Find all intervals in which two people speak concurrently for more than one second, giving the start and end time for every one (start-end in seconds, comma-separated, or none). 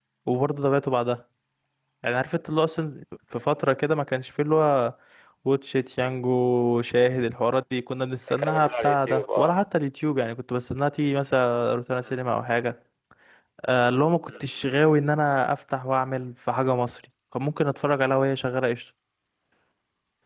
8.3-9.6